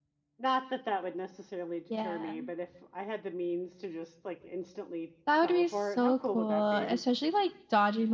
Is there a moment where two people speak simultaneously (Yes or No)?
Yes